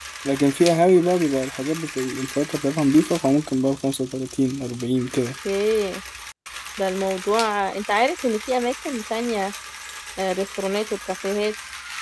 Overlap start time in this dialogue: none

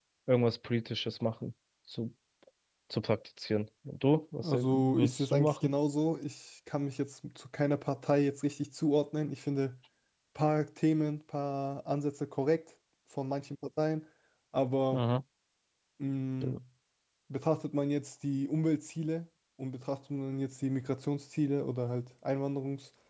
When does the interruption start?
4.4 s

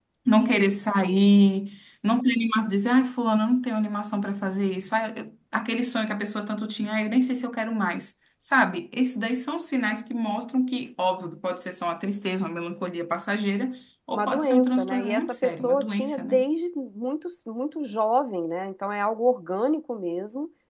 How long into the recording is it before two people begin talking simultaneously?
14.1 s

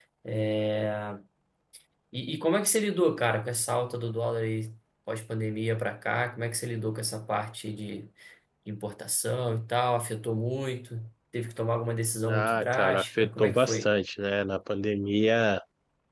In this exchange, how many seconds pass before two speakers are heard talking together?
12.3 s

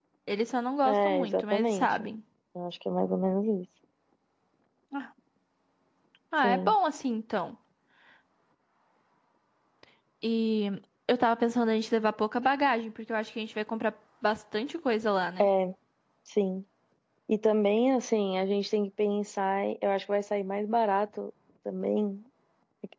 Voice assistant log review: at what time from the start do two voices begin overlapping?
0.8 s

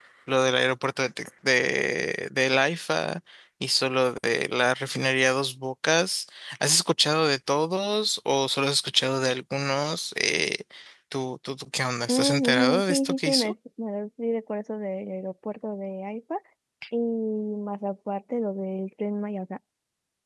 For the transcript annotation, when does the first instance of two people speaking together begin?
12.1 s

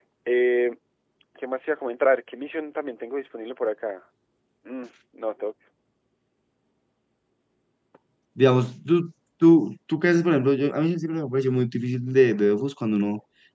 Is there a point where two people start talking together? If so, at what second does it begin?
none

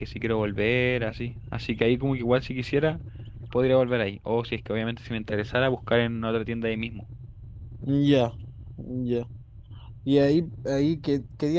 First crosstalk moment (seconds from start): none

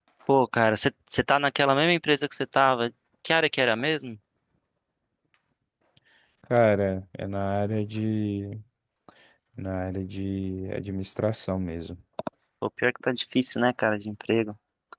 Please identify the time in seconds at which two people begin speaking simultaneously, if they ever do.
none

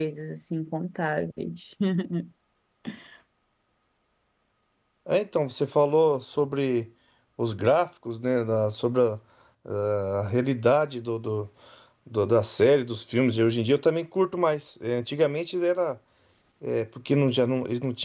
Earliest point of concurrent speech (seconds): none

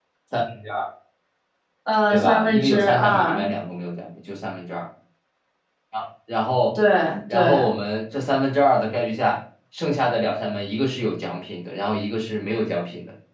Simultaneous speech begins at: 2.1 s

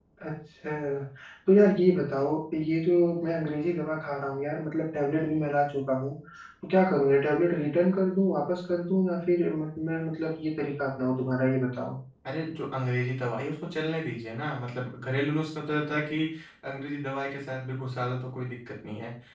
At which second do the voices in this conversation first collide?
none

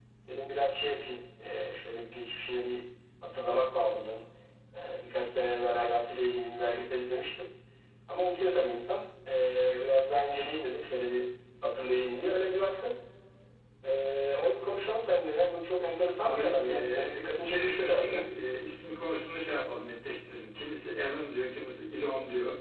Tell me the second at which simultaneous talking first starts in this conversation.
16.2 s

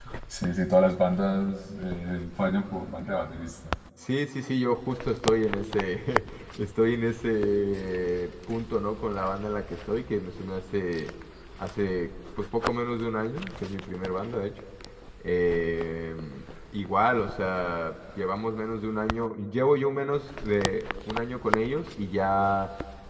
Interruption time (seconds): none

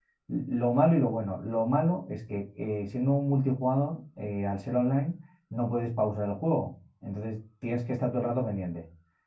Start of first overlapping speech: none

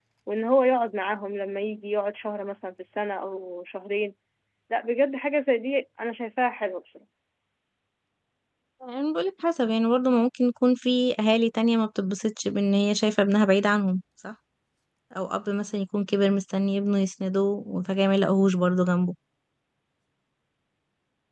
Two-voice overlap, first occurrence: none

